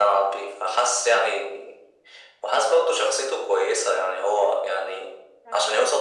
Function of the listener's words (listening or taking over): listening